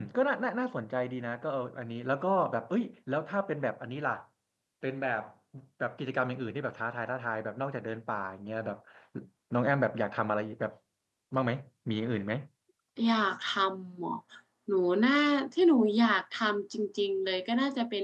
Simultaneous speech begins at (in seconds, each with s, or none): none